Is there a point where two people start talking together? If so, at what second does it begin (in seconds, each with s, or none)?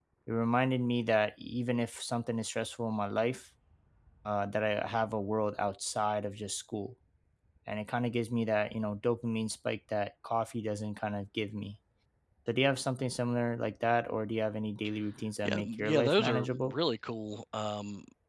15.4 s